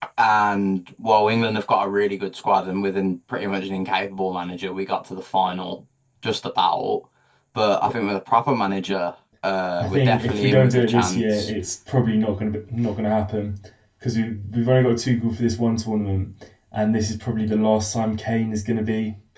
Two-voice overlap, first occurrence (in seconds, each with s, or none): 9.8 s